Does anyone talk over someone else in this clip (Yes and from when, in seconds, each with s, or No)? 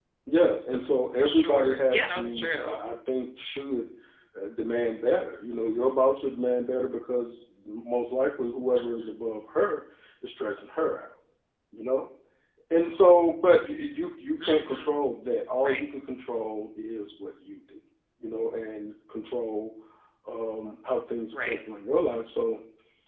Yes, from 1.2 s